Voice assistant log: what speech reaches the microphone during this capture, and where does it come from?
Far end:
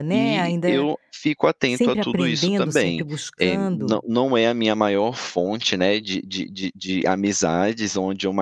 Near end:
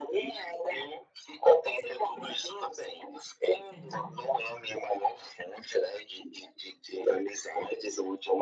both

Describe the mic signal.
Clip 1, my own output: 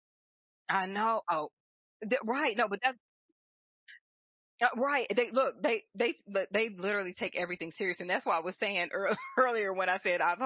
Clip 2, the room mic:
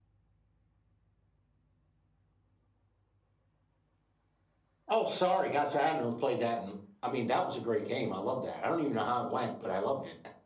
user only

